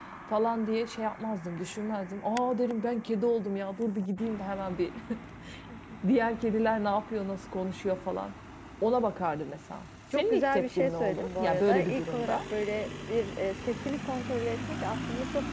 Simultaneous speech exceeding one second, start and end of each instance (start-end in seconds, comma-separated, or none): 10.1-12.4